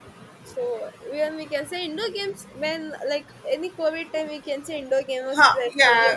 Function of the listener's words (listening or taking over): taking over